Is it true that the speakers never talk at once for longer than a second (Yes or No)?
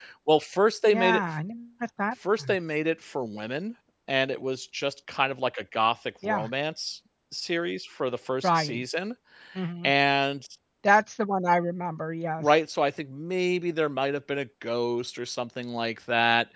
Yes